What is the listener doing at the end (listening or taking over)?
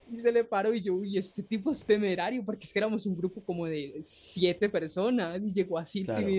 listening